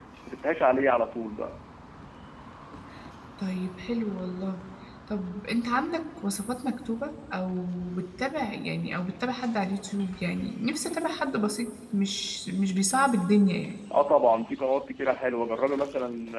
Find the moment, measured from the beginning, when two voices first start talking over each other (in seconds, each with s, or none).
none